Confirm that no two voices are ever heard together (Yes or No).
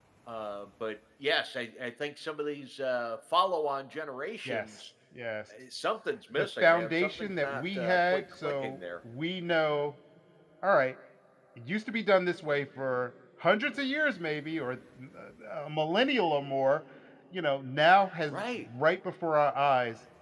No